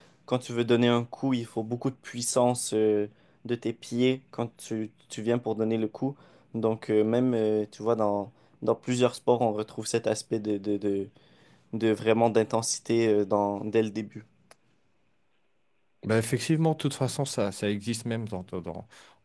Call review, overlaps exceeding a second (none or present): none